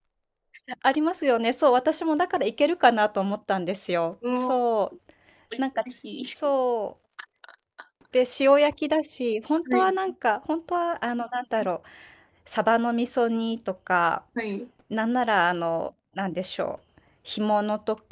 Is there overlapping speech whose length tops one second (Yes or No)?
No